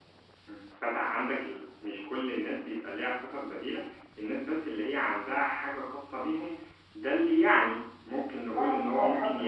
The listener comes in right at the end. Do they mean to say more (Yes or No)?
Yes